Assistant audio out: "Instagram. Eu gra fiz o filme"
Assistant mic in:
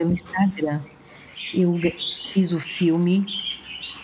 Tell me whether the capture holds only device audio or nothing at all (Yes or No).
Yes